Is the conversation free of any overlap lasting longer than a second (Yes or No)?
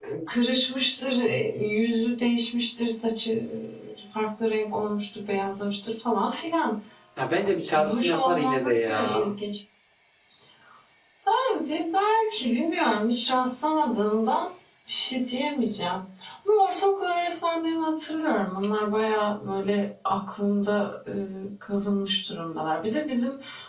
No